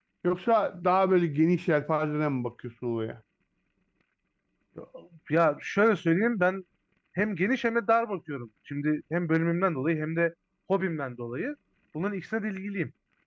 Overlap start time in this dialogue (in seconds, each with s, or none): none